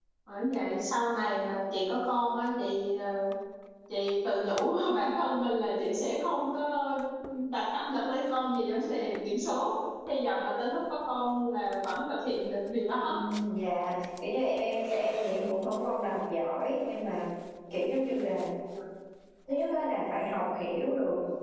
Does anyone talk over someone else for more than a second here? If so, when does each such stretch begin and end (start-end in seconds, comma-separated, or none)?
none